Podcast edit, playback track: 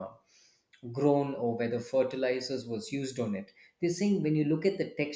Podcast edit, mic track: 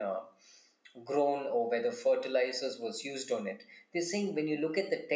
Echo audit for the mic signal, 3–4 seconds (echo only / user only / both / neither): echo only